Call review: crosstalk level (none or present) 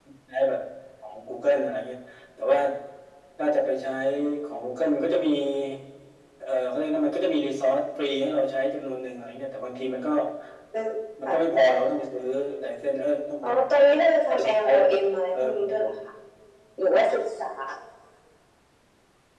present